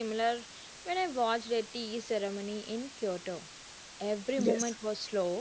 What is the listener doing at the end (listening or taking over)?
listening